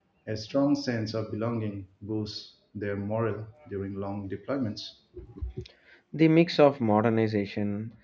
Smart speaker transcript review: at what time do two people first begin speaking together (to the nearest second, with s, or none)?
none